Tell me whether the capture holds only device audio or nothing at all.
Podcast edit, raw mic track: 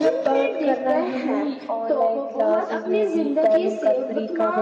No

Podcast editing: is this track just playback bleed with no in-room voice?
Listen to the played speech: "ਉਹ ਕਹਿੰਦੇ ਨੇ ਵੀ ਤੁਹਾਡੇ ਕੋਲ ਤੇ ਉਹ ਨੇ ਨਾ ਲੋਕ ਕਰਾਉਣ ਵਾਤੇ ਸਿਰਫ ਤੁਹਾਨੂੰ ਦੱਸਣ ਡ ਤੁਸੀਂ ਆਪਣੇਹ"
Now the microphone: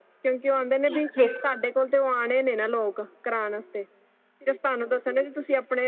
No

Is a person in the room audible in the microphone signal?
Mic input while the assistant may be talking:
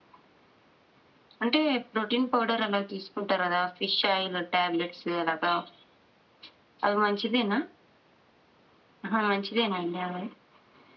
No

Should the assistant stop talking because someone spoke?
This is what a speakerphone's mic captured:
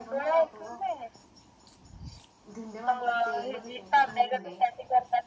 Yes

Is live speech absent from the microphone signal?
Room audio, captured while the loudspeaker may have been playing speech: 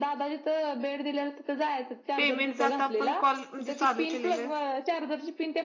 No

